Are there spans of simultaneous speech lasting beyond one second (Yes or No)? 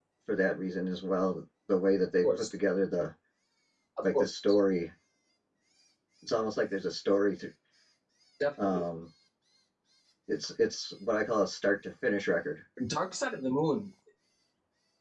No